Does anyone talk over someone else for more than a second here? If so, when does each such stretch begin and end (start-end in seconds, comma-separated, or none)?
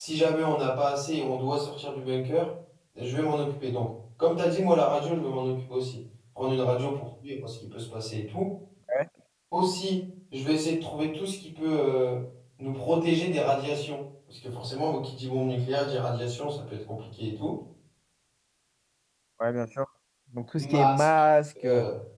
none